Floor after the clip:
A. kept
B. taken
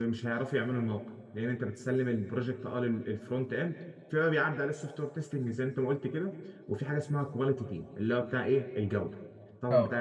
A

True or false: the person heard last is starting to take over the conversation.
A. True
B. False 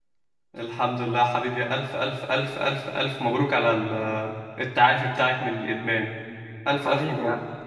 A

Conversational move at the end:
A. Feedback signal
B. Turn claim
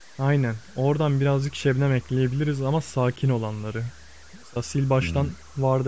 A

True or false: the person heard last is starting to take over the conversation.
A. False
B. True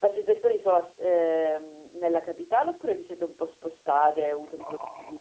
B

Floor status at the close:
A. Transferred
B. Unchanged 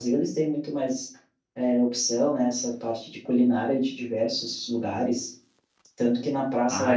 B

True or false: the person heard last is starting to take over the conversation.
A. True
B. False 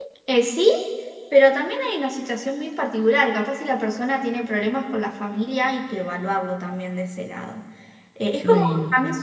B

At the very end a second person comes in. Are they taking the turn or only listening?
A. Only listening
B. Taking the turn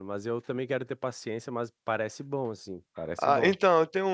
B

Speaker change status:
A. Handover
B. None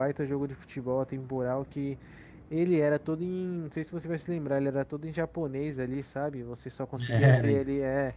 B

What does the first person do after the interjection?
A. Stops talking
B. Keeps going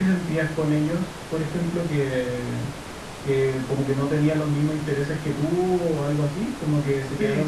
A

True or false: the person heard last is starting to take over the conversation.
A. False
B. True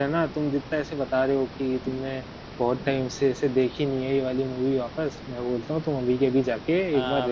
B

